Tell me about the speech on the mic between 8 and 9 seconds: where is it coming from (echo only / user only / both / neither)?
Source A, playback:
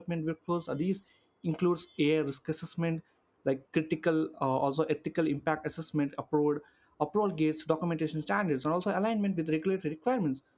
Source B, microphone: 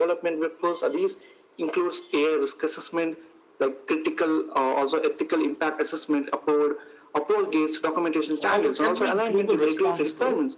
both